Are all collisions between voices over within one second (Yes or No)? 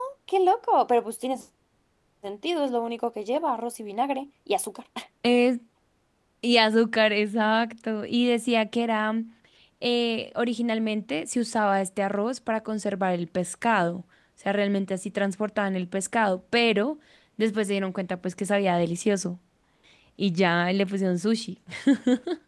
Yes